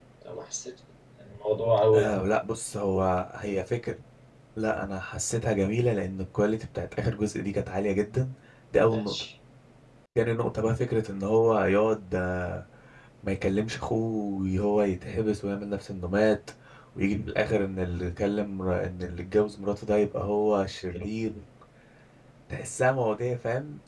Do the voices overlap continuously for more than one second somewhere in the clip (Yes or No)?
No